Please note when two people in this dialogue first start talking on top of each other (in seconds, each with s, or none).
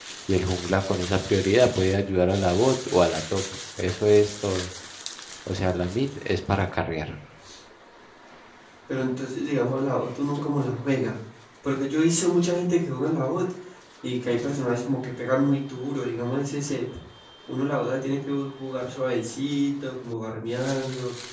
none